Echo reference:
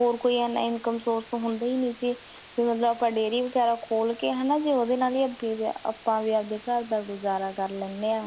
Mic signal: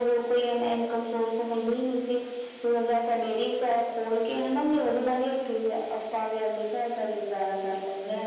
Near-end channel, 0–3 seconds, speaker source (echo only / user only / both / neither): echo only